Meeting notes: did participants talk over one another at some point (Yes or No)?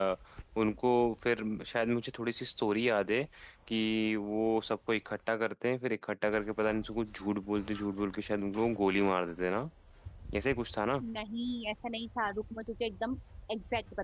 No